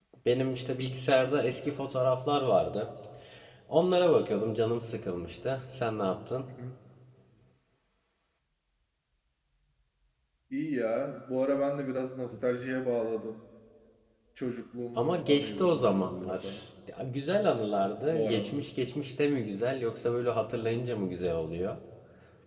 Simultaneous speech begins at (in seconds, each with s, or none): 15.0 s